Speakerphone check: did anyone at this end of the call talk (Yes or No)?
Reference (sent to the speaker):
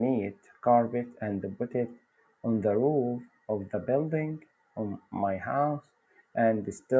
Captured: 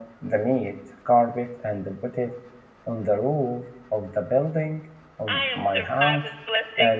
Yes